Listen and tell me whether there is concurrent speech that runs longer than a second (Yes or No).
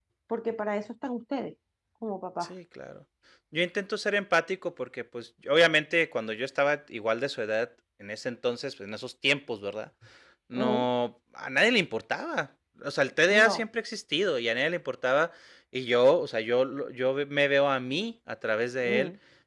No